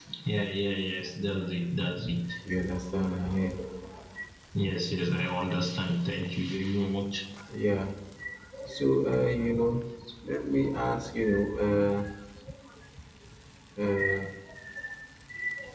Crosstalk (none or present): none